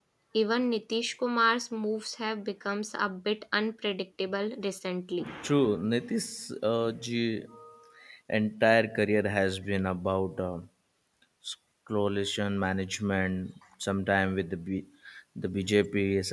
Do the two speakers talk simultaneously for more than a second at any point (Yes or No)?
No